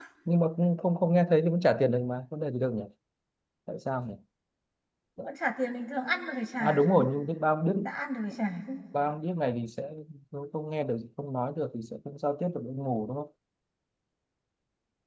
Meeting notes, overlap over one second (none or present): none